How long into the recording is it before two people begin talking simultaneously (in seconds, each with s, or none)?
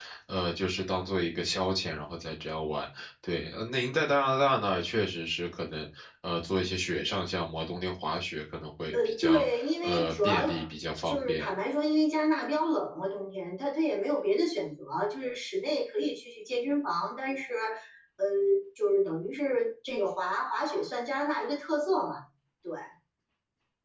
8.9 s